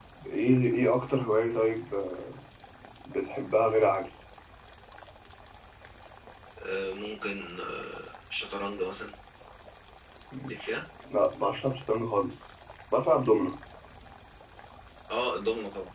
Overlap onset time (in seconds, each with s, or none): none